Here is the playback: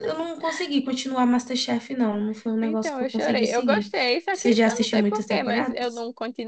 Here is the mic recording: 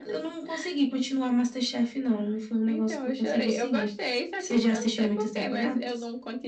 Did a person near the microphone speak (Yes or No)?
No